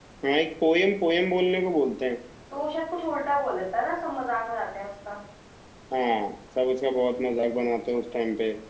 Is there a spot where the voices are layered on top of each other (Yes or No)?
No